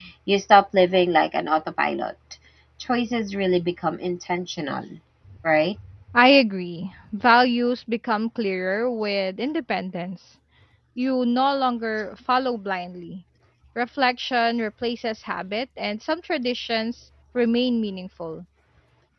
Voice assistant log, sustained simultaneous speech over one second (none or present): none